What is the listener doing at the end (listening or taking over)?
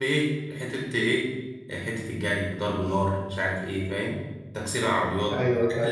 listening